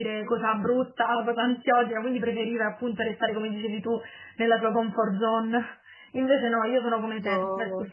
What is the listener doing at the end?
listening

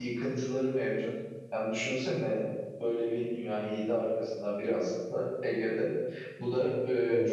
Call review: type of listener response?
listening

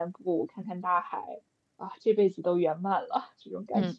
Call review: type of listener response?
taking over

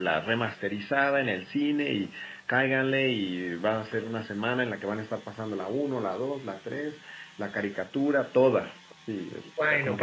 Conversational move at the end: taking over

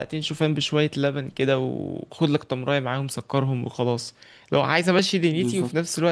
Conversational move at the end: listening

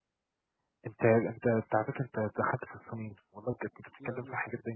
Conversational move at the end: listening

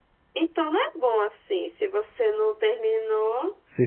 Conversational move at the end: taking over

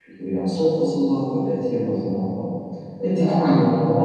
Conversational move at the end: listening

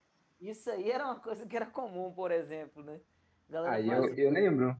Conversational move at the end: taking over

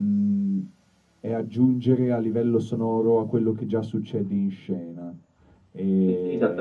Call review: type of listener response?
taking over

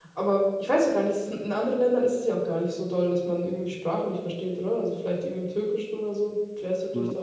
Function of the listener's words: taking over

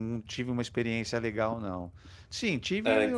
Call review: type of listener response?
listening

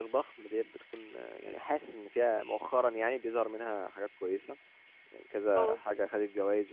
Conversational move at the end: listening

